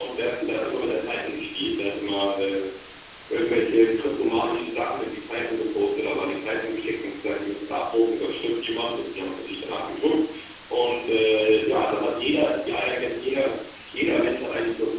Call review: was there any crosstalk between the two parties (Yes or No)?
No